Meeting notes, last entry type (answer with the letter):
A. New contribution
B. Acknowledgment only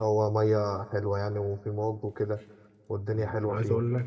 A